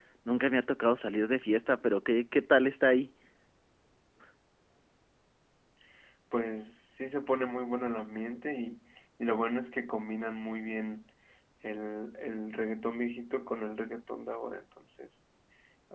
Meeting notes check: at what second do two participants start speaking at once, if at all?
none

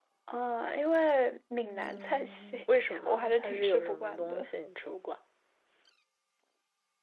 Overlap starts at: 1.7 s

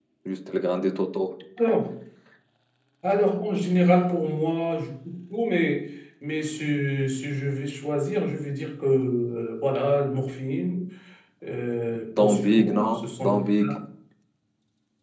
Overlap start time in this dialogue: 12.2 s

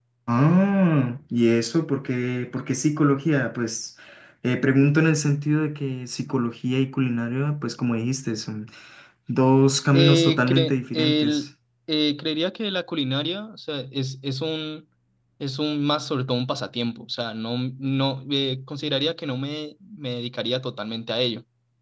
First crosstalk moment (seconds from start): 9.9 s

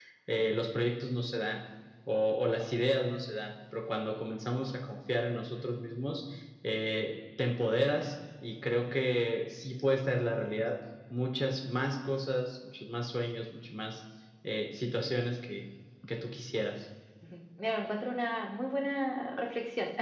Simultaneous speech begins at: none

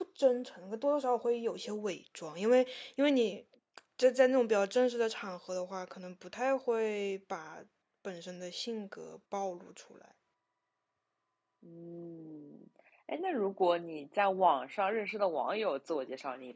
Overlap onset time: none

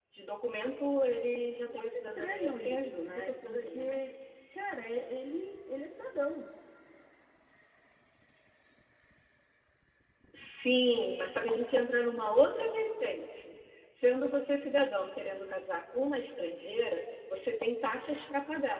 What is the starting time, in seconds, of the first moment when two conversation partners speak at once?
1.7 s

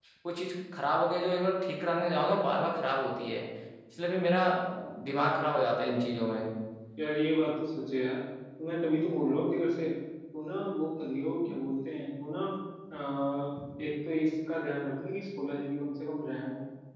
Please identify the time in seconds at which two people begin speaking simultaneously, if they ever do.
none

